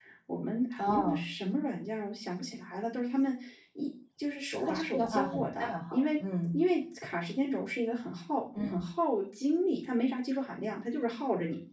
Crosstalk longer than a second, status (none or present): present